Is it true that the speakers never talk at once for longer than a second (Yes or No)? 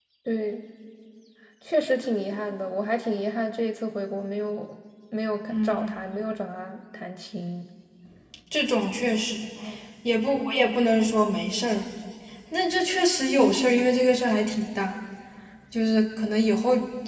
Yes